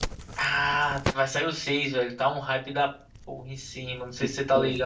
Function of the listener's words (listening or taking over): taking over